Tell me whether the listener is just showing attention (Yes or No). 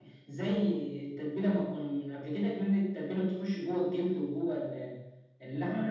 No